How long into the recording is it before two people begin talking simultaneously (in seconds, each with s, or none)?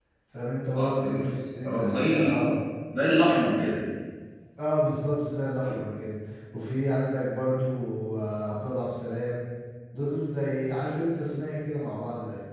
0.8 s